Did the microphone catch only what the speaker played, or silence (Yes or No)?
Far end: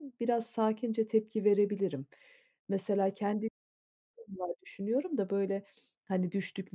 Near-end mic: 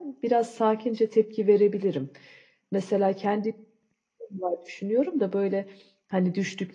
Yes